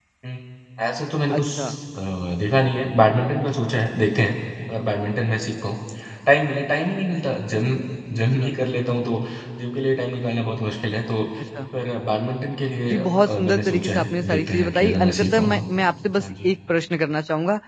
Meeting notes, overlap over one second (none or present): present